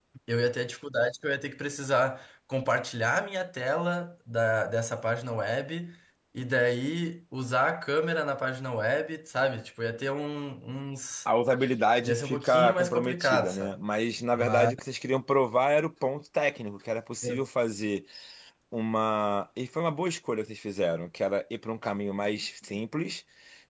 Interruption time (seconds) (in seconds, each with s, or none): 12.0 s